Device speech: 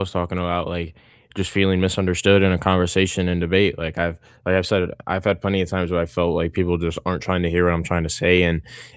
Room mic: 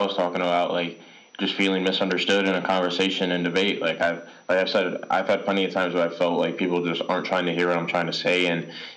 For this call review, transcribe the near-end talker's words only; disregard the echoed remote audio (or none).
none